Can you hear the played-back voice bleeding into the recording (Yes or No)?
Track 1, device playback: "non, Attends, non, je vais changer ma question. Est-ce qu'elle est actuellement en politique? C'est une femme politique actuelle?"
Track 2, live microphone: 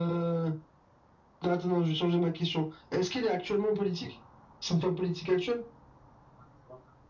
Yes